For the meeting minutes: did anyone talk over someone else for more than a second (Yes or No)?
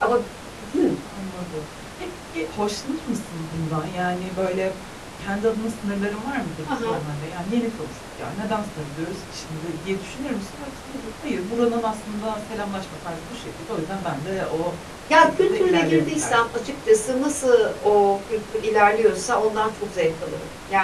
Yes